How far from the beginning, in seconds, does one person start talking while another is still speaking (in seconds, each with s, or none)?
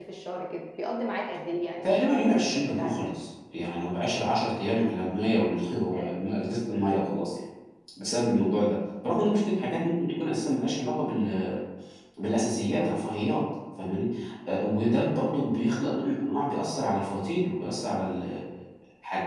1.8 s